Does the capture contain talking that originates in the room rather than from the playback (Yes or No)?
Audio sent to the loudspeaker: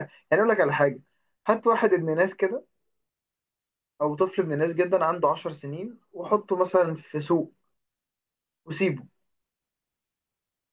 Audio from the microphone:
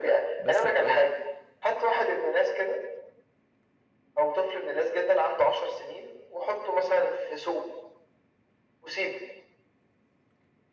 Yes